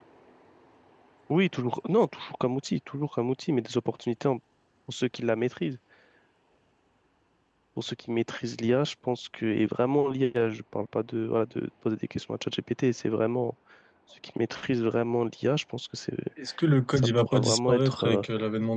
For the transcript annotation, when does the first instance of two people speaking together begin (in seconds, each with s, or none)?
17.0 s